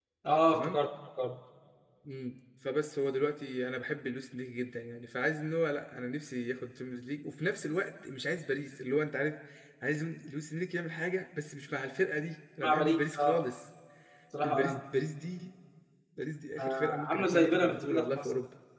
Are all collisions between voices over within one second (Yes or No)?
No